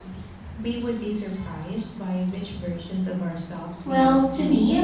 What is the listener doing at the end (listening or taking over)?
taking over